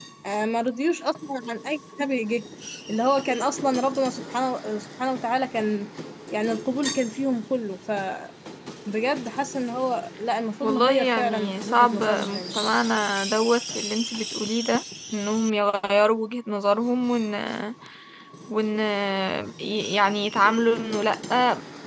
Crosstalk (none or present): present